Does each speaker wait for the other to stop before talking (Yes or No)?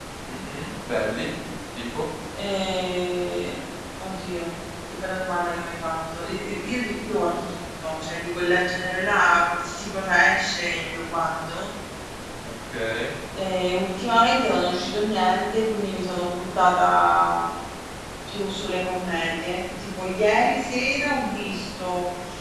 Yes